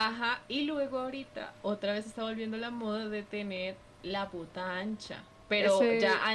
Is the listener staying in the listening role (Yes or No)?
Yes